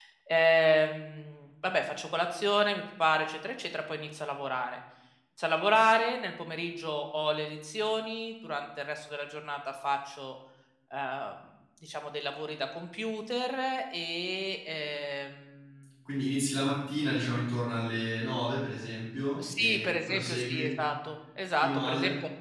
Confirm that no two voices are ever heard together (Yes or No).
No